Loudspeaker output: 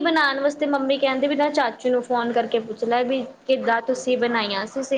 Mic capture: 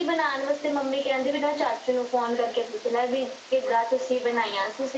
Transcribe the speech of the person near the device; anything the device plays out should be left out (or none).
none